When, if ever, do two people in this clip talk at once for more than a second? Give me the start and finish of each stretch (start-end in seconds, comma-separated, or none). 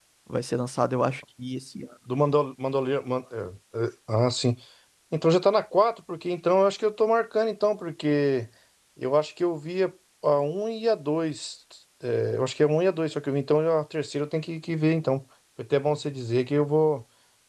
none